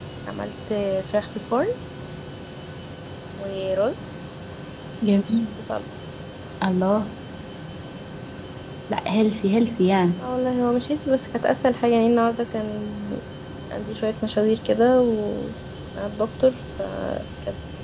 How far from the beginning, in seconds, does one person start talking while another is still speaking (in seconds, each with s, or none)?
none